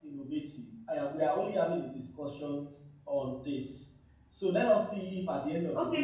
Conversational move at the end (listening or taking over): taking over